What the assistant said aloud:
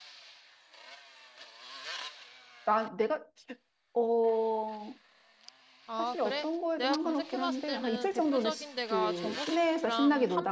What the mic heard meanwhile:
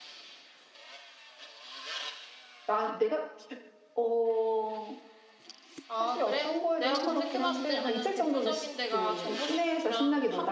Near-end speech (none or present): none